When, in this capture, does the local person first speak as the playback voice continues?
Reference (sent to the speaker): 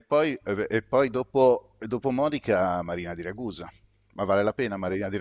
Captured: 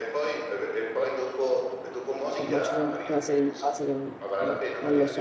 2 s

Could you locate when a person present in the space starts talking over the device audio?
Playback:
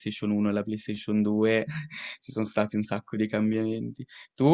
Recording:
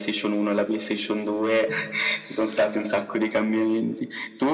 none

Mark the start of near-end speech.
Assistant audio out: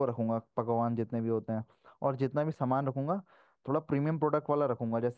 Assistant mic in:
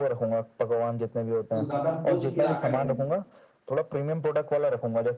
2 s

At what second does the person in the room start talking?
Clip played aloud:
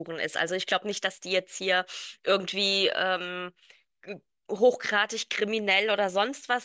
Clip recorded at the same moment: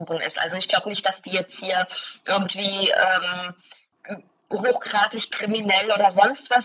none

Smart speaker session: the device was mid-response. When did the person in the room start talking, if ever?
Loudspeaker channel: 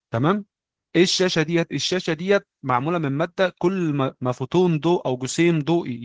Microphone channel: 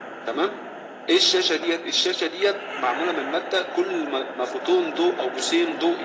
none

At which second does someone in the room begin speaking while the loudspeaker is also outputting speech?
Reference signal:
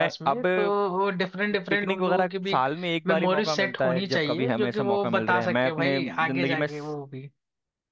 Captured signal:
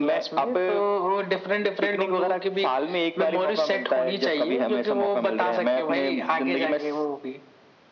none

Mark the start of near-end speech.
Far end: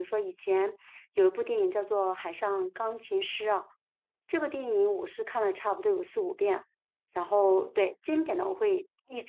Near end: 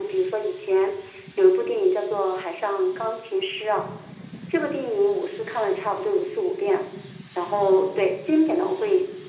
none

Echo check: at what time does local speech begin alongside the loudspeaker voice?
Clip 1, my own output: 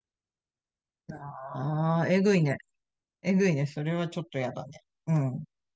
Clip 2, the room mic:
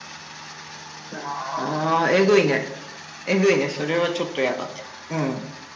none

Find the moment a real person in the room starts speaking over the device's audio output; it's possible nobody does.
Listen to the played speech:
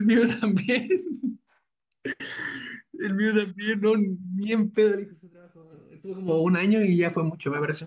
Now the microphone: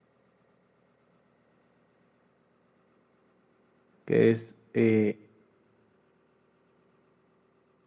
4 s

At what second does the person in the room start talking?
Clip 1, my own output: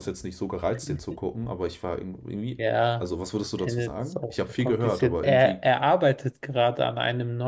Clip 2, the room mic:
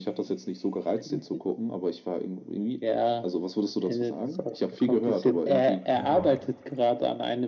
6 s

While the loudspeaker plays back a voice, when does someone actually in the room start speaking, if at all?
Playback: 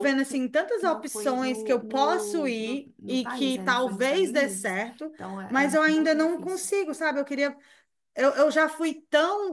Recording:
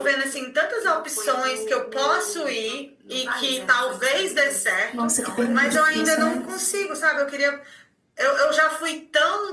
5 s

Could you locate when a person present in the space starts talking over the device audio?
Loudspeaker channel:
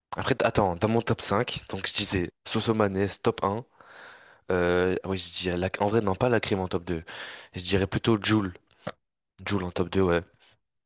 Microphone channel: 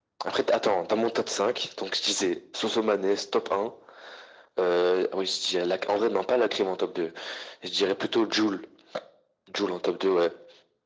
none

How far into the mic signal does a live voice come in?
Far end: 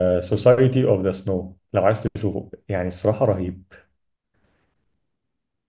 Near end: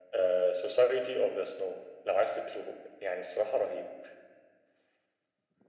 none

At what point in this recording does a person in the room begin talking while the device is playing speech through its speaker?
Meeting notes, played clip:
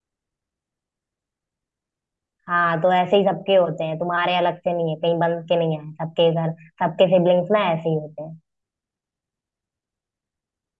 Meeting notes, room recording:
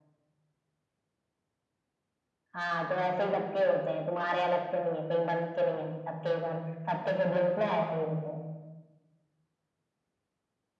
none

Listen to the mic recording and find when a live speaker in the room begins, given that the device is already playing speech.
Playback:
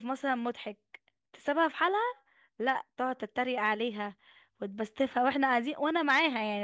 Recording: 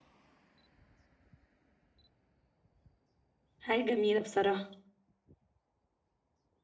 4 s

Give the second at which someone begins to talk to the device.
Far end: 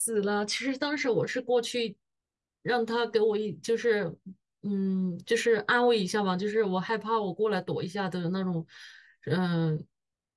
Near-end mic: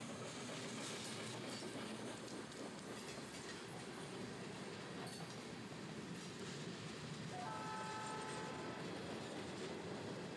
none

